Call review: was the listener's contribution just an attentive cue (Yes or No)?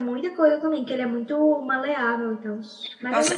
No